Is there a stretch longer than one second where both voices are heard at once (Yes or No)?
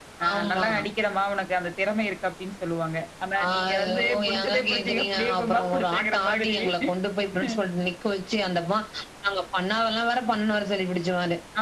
Yes